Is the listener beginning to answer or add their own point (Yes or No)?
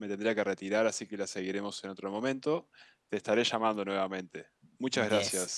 Yes